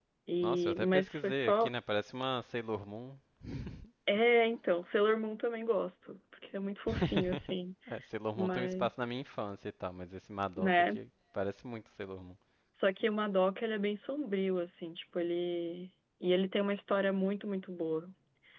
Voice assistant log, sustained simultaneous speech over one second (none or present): present